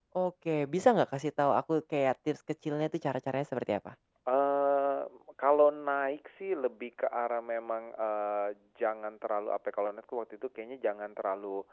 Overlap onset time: none

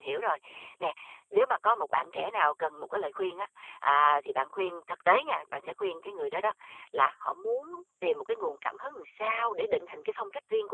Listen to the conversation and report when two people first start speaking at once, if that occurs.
none

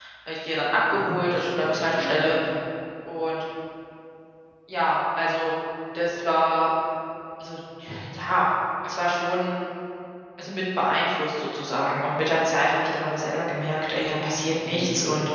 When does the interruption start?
0.9 s

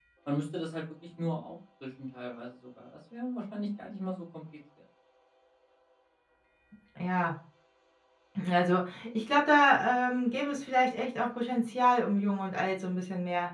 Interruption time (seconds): none

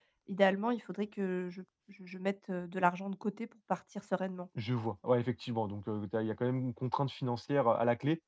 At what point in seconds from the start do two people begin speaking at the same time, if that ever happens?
none

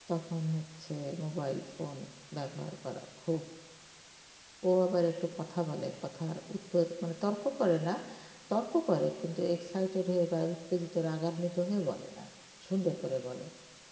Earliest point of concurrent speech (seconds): none

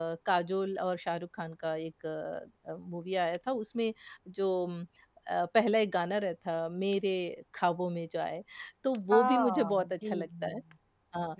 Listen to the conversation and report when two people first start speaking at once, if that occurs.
9.1 s

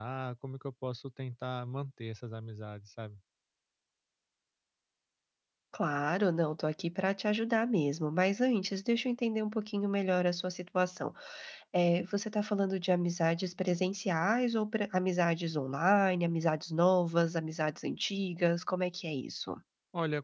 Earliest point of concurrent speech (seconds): none

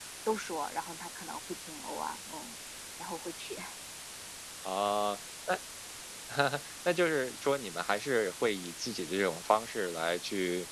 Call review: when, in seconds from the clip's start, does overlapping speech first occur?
none

